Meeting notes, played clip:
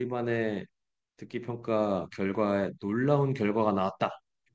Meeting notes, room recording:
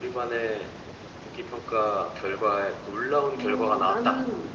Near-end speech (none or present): present